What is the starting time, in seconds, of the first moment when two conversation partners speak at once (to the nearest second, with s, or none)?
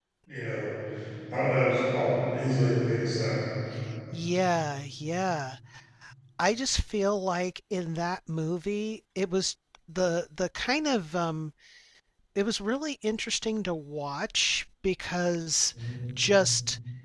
none